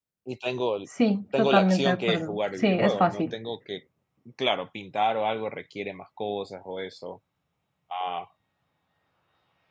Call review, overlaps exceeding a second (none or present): present